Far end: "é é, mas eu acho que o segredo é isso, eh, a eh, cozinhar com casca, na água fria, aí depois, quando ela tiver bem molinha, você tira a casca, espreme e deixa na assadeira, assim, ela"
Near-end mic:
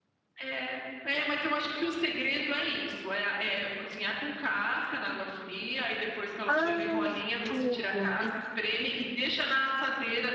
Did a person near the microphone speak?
Yes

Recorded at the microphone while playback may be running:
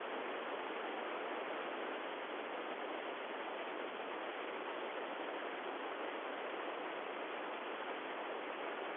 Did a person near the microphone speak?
No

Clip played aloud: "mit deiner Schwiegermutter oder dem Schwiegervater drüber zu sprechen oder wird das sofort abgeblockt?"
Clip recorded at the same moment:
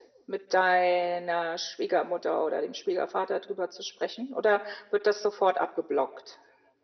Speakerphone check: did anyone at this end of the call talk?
No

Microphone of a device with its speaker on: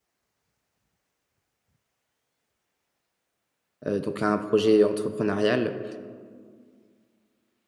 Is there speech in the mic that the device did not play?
Yes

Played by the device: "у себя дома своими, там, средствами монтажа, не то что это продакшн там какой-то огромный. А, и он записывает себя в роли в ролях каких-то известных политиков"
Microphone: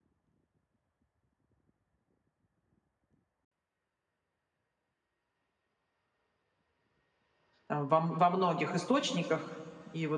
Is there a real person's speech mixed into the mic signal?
Yes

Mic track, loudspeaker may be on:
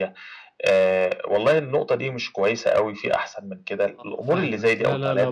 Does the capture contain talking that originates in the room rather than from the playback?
Yes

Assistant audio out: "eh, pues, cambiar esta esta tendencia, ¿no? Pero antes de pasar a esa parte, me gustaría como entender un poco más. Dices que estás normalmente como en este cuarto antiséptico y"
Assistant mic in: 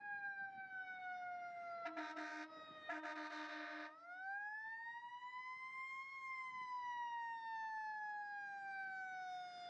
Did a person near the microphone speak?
No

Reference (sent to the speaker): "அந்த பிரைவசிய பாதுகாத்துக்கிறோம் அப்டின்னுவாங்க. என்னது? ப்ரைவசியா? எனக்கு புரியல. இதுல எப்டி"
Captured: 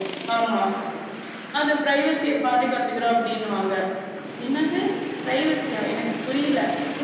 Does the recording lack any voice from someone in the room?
Yes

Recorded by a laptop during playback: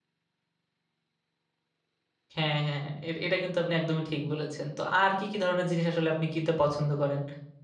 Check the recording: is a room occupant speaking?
Yes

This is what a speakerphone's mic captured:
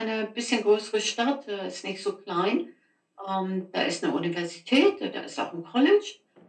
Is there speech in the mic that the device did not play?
No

